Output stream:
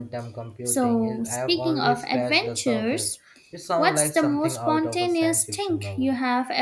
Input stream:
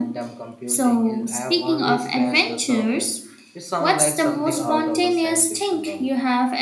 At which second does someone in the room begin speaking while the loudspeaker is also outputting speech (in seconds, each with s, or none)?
none